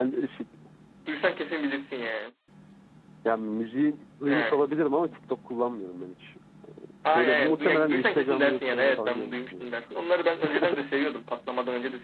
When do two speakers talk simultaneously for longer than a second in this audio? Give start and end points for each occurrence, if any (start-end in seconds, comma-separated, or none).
7.1-9.6